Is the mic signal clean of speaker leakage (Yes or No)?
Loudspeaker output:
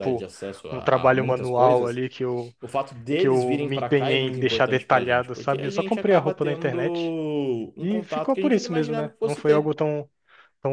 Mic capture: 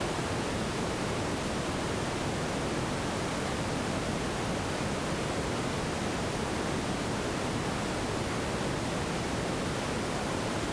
Yes